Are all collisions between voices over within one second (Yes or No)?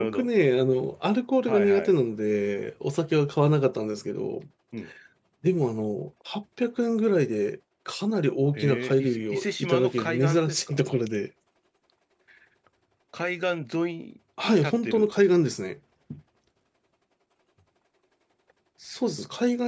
No